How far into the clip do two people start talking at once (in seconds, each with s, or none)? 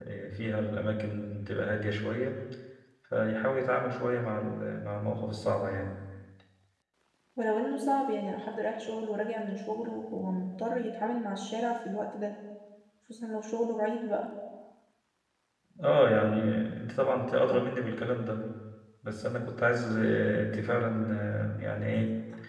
none